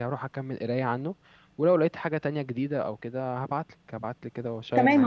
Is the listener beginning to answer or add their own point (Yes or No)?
Yes